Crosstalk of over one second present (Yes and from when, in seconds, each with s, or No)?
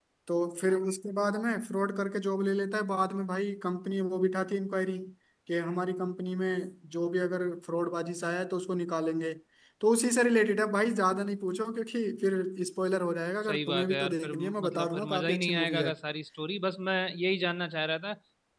Yes, from 13.4 s